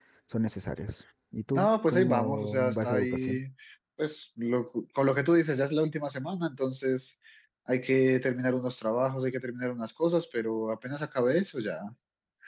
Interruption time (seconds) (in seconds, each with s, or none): 1.6 s